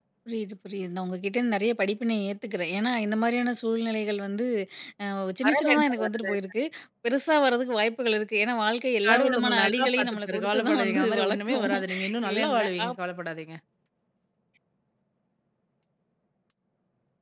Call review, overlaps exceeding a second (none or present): present